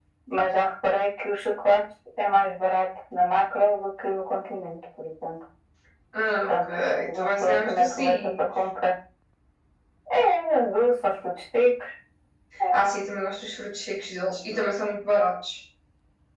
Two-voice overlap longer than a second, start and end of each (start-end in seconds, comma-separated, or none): 6.5-8.5